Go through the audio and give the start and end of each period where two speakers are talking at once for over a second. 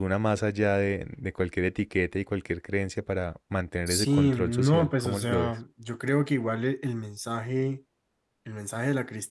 3.9-5.6

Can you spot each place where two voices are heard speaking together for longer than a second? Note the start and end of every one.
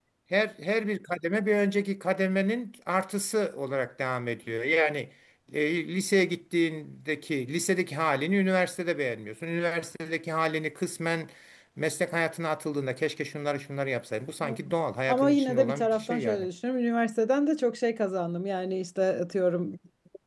15.1-16.5

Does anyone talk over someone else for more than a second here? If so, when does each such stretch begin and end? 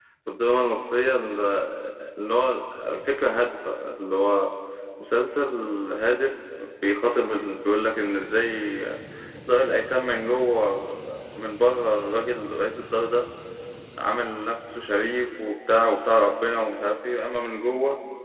none

